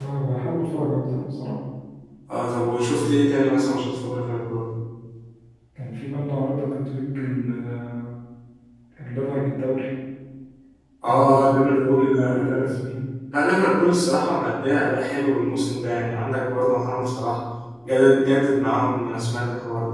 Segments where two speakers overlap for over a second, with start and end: 11.1-12.6

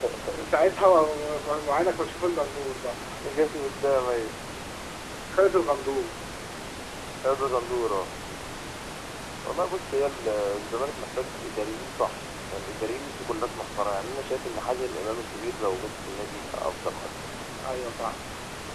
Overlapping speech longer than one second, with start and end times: none

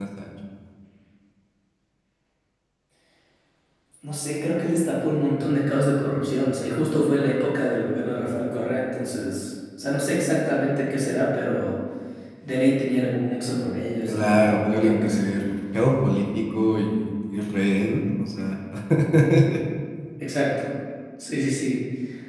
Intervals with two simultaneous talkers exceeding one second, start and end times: 14.1-15.3

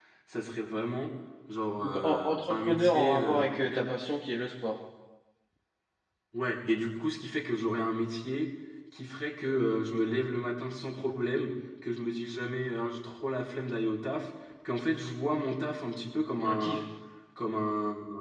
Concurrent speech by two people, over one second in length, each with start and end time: 1.8-3.9

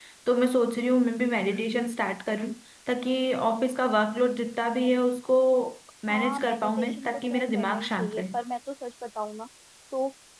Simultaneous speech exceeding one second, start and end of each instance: 6.1-8.2

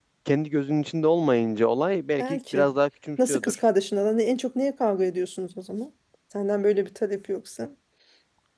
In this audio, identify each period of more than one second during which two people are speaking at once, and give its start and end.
none

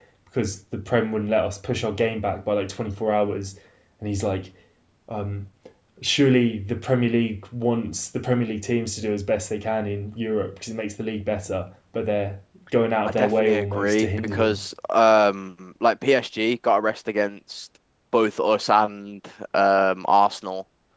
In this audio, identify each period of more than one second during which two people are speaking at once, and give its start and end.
13.0-14.6

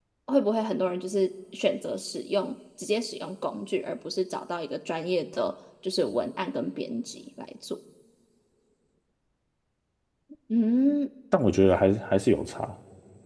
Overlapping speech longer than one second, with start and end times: none

